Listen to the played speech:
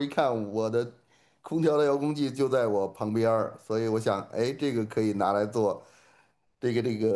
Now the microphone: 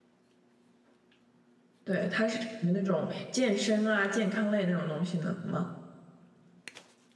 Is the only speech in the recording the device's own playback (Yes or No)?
No